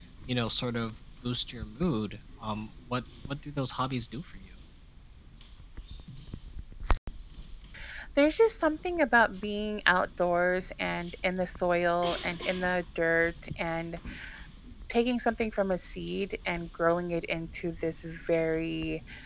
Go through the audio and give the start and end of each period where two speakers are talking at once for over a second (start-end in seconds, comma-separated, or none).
none